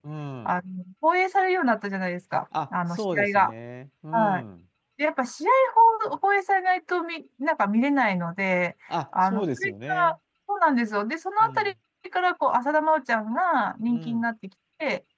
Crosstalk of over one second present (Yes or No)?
Yes